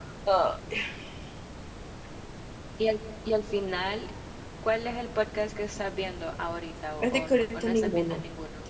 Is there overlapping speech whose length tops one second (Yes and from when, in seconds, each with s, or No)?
Yes, from 7.0 s